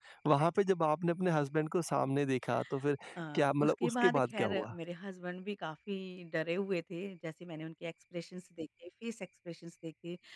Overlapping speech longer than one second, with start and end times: 3.3-4.7

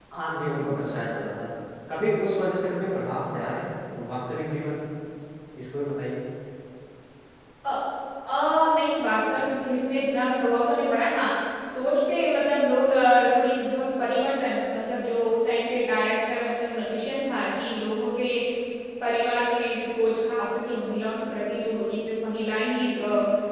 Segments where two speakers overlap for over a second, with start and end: none

